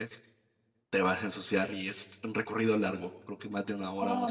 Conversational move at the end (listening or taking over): listening